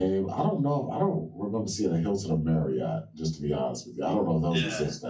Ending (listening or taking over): taking over